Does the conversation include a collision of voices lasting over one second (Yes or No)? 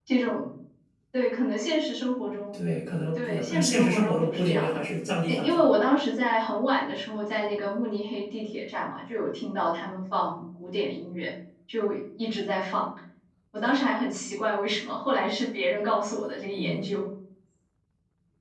Yes